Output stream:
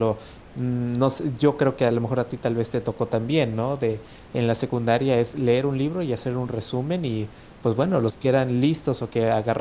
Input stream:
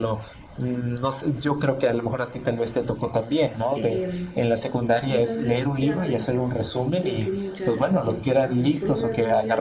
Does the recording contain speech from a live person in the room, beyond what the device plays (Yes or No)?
Yes